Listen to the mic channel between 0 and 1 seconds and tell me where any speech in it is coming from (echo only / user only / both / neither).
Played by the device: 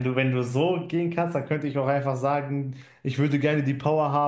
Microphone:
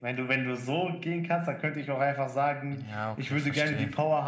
echo only